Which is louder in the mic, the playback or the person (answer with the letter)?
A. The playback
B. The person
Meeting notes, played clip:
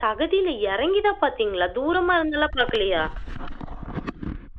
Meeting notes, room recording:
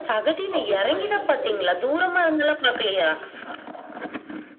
A